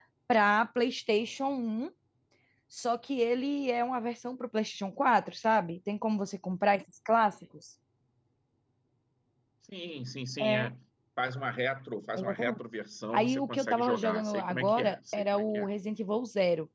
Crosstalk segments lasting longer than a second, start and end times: 13.1-15.7

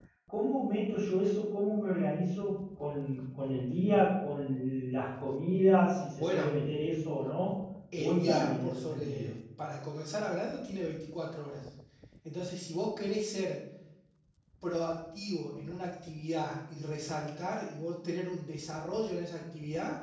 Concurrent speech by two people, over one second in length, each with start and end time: 8.0-9.3

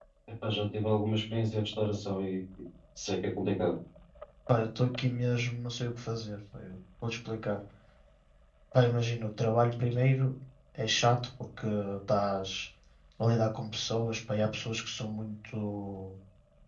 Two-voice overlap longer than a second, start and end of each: none

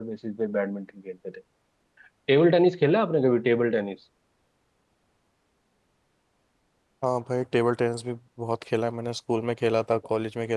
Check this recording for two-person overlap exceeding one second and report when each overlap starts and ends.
none

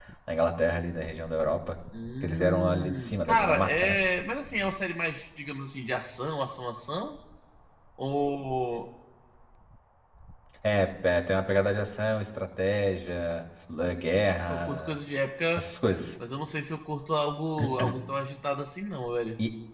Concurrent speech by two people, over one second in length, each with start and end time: 2.2-4.0

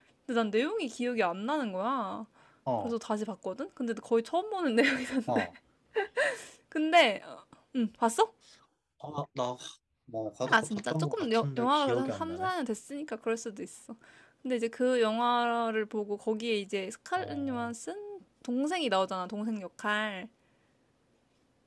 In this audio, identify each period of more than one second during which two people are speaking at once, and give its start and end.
10.5-12.5

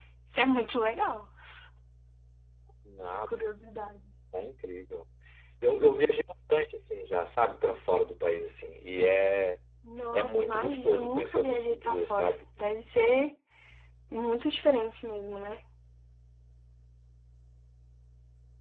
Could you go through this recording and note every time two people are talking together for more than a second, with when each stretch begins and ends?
10.1-12.4

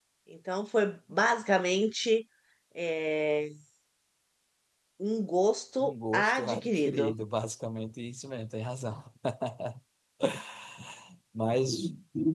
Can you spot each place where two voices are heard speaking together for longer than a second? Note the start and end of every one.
5.8-7.1

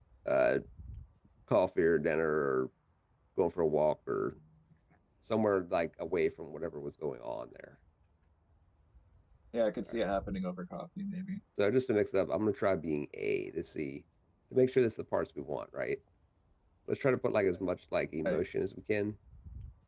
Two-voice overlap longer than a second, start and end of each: none

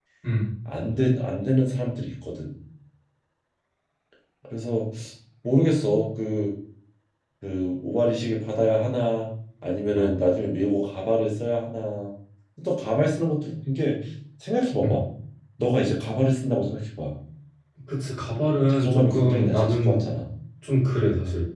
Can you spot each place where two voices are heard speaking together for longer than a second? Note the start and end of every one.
18.7-20.0

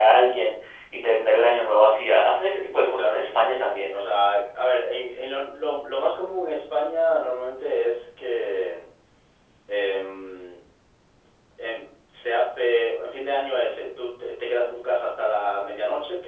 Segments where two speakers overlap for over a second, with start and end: 2.8-4.0

